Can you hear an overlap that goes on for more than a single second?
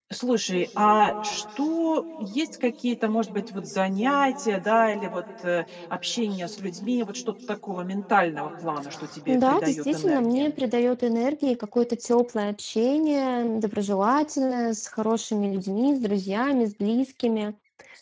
Yes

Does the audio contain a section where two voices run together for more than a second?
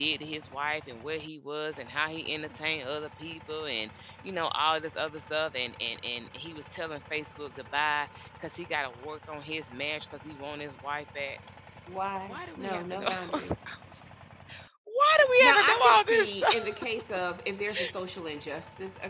Yes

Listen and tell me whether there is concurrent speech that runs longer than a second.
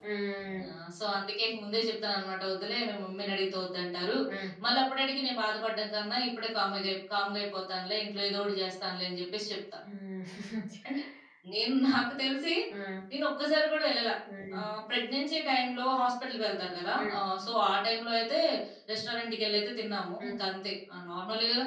No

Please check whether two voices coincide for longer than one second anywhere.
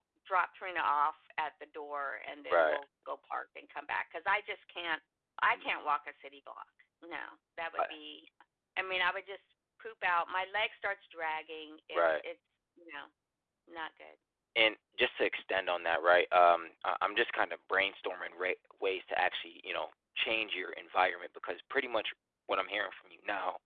No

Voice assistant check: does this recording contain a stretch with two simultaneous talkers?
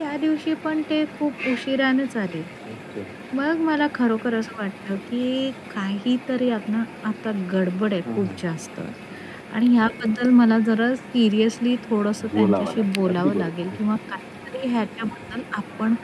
Yes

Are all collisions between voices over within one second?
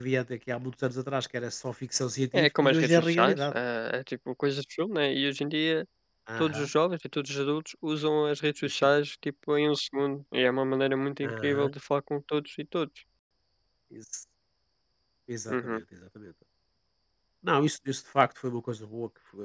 No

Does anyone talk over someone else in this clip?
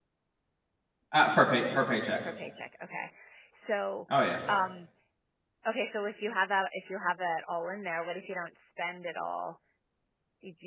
No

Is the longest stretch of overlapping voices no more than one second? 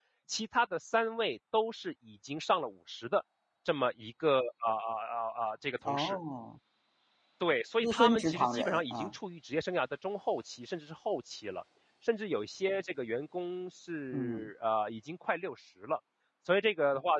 No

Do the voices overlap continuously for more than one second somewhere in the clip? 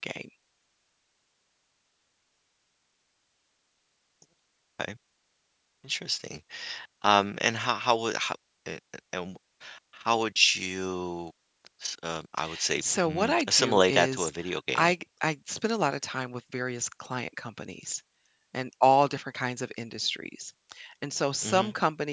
Yes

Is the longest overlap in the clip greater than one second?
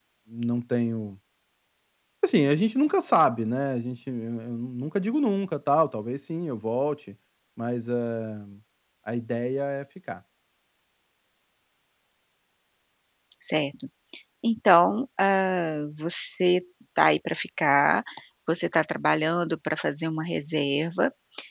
No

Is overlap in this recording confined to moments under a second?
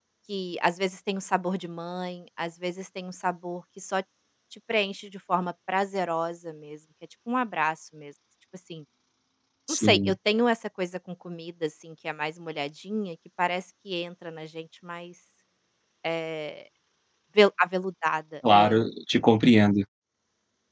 Yes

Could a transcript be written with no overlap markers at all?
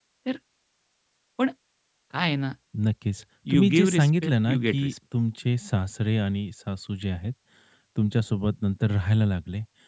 No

